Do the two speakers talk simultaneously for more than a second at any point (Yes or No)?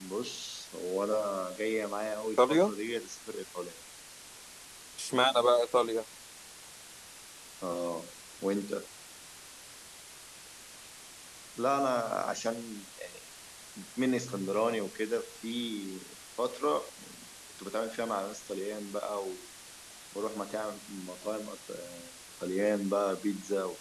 No